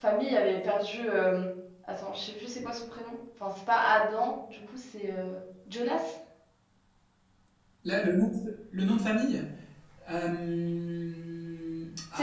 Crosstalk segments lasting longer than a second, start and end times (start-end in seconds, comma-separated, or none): none